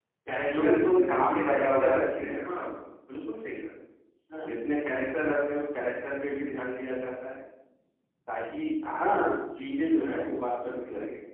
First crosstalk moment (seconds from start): 0.6 s

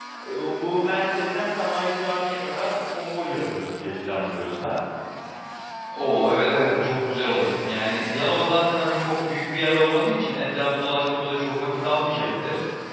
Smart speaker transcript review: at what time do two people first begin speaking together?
none

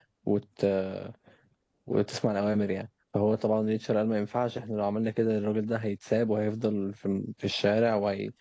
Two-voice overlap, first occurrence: none

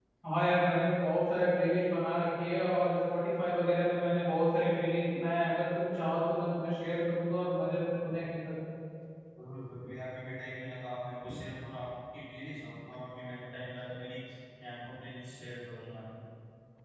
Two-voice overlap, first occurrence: none

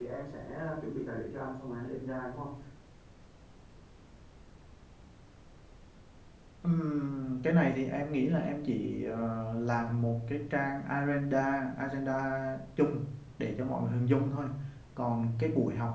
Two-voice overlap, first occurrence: none

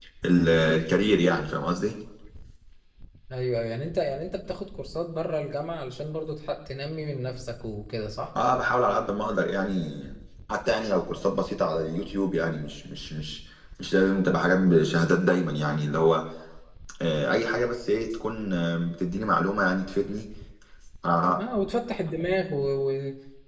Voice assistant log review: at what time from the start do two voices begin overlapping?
none

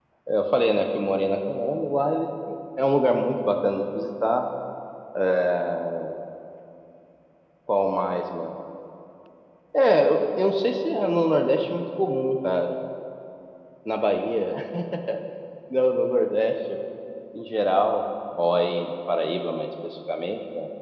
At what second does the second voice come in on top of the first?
none

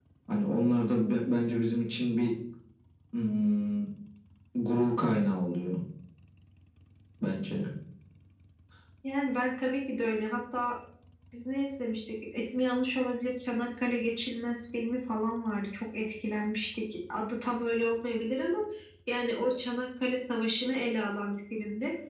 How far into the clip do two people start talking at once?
none

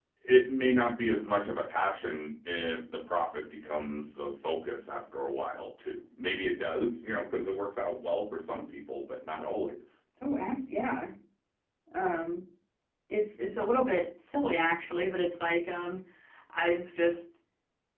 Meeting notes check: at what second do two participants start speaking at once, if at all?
none

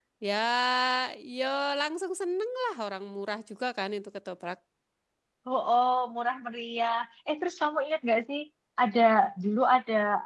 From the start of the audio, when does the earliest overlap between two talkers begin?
none

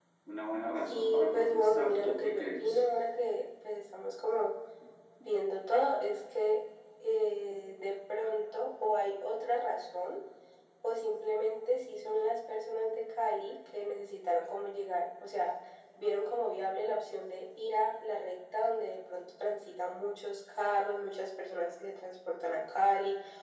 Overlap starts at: 0.9 s

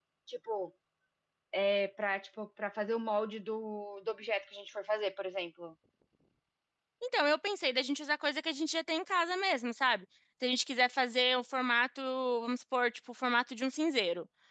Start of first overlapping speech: none

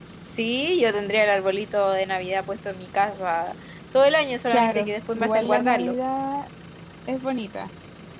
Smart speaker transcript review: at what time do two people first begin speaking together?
4.5 s

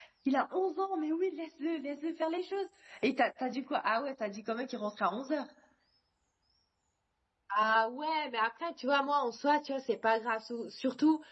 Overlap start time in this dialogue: none

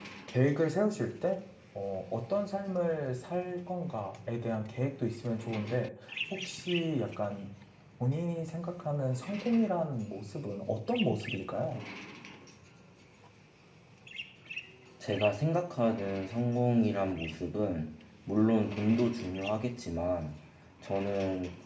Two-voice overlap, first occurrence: none

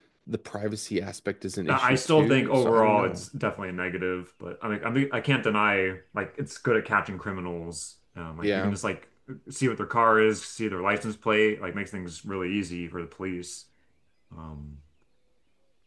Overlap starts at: 1.7 s

